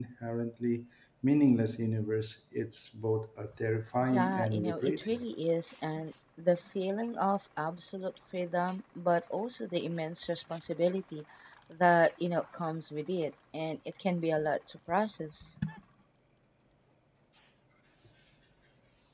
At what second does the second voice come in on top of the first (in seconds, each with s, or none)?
4.0 s